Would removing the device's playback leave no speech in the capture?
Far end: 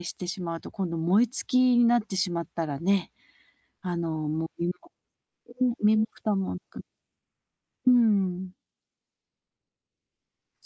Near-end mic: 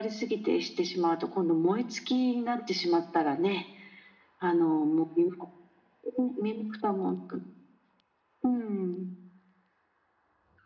Yes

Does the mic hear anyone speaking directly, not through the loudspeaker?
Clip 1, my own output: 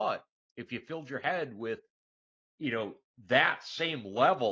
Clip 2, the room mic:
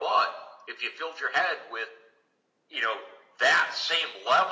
No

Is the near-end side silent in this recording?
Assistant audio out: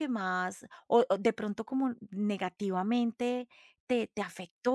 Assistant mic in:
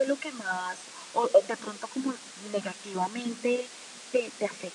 Yes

